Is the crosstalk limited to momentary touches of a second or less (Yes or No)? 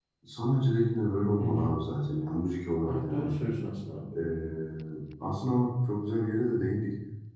Yes